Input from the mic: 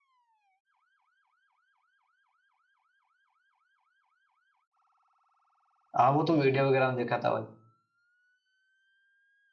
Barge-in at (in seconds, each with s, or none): 6.0 s